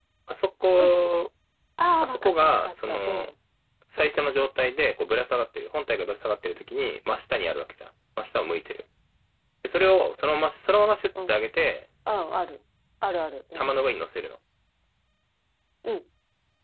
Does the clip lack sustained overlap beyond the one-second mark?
No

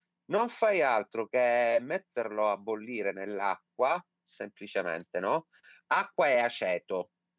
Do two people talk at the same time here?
No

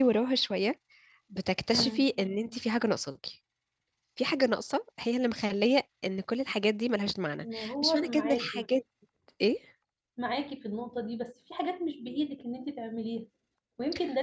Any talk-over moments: Yes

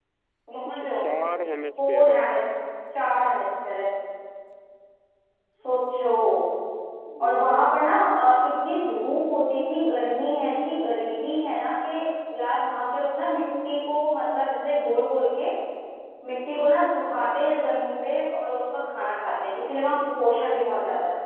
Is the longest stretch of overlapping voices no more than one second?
Yes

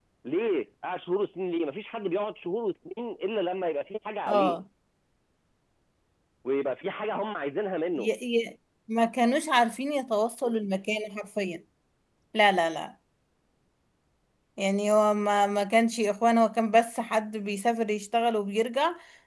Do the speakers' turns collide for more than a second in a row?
No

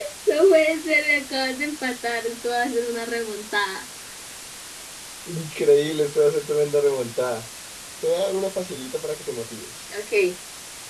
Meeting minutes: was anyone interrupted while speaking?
No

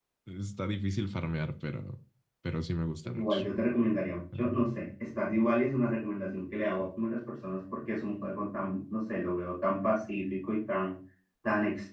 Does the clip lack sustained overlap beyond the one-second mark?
Yes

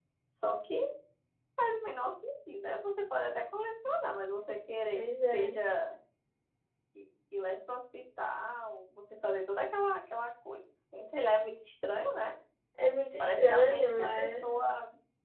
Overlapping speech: Yes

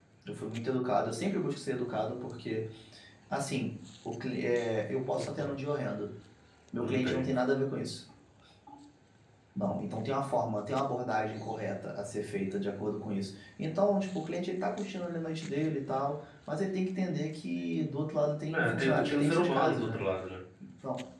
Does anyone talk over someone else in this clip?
Yes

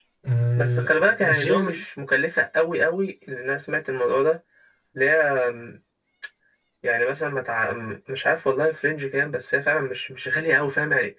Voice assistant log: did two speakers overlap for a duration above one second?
Yes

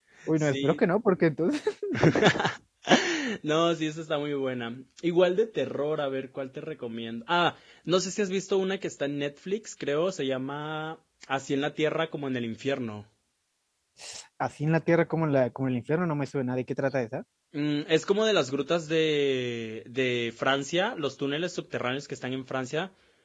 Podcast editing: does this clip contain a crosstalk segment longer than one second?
No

